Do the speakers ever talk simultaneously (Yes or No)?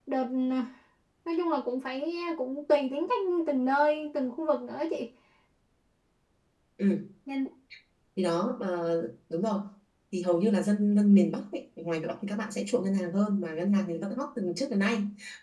No